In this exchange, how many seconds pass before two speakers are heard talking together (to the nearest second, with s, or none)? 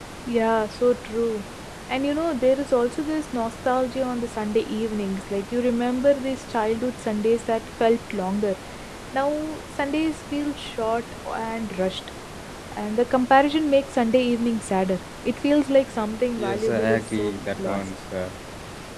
16 s